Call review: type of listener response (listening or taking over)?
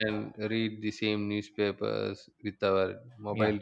taking over